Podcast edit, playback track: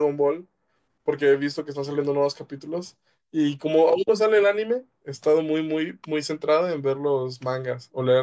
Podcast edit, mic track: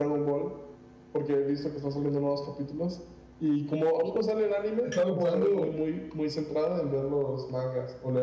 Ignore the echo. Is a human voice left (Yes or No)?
Yes